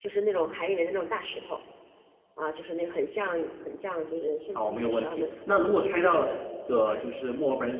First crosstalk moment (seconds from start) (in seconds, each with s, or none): 4.5 s